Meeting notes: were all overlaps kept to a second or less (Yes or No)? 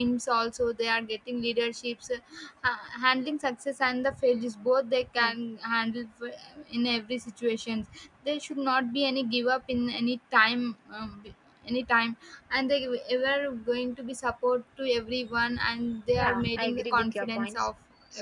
No